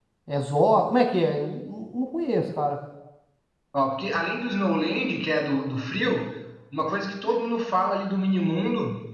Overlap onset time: none

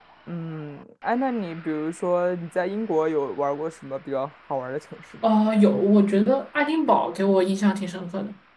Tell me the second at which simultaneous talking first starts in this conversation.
none

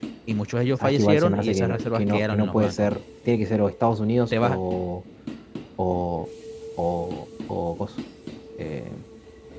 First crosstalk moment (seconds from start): 0.8 s

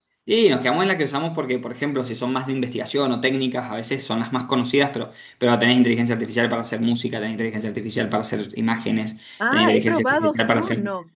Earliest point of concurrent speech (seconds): 9.4 s

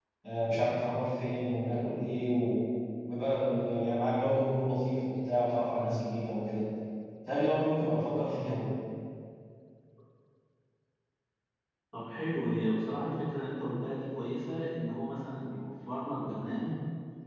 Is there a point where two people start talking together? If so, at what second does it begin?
none

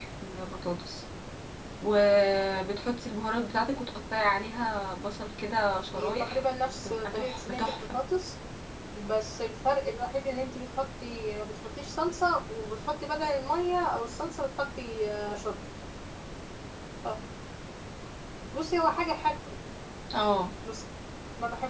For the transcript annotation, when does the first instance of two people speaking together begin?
5.9 s

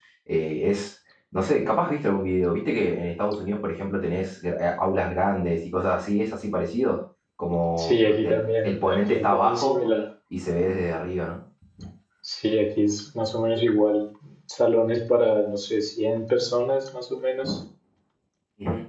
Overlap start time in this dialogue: 7.8 s

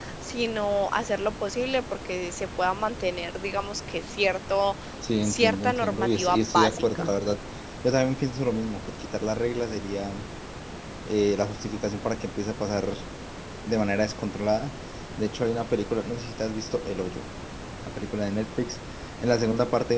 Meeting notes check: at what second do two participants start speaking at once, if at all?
5.2 s

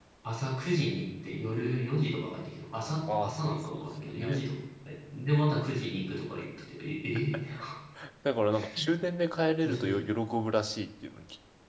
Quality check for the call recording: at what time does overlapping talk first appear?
3.1 s

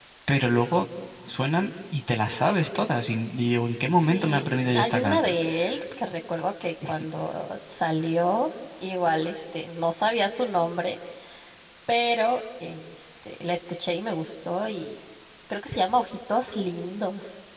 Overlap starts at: 3.9 s

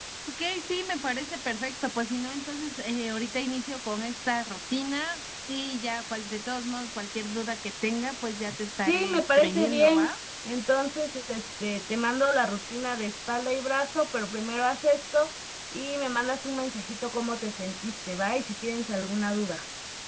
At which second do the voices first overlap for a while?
8.8 s

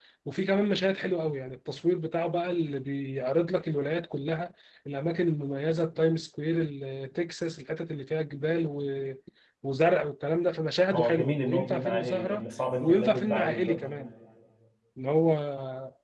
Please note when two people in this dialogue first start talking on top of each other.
10.9 s

